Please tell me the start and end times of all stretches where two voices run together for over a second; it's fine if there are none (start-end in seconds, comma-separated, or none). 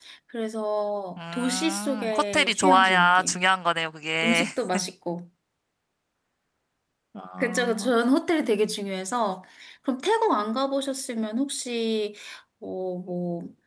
1.2-3.4